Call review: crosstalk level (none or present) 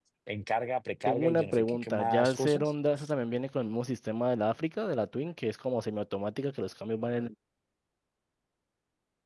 present